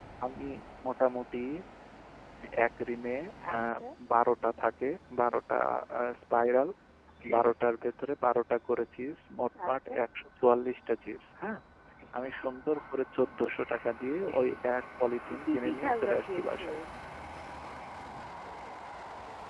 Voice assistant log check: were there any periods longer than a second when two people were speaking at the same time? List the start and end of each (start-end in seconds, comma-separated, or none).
15.4-16.8